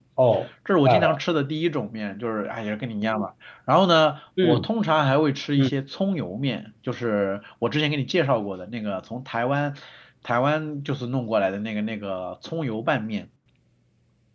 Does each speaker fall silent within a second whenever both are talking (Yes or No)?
Yes